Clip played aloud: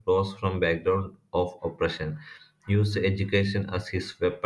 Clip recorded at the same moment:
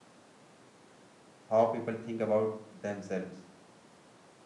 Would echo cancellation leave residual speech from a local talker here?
Yes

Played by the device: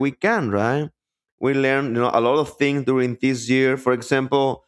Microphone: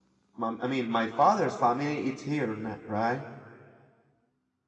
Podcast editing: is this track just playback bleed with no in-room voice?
No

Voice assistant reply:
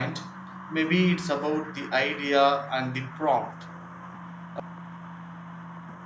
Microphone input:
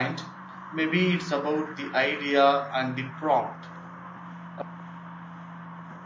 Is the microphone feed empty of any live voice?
Yes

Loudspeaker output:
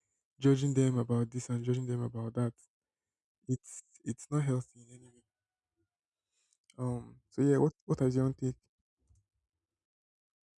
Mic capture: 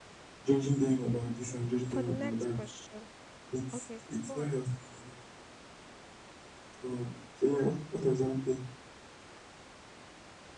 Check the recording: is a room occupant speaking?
Yes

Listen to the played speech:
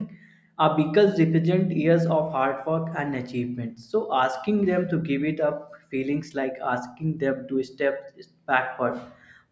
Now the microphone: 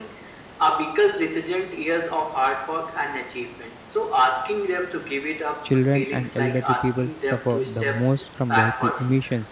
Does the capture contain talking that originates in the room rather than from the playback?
Yes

